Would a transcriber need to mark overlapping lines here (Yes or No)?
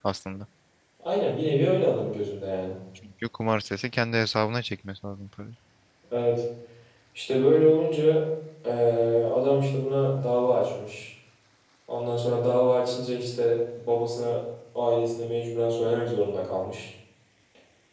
No